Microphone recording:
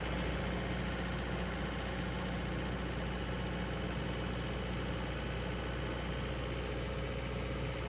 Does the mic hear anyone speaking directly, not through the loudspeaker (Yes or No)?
No